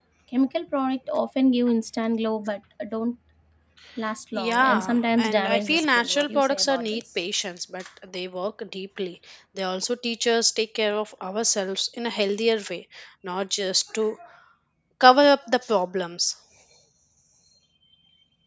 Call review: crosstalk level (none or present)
present